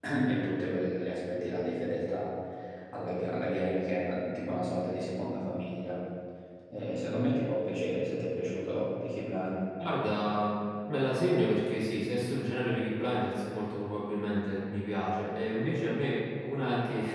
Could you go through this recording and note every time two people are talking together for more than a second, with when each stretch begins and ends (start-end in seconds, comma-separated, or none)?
none